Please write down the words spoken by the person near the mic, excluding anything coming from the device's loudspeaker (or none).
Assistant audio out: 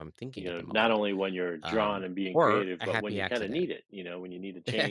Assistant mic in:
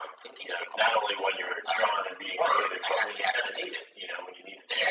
none